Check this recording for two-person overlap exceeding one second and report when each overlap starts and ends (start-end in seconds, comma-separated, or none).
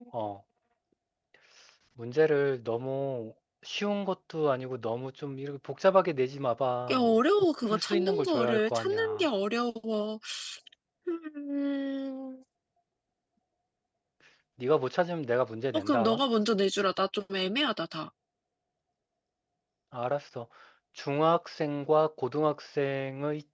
7.7-9.2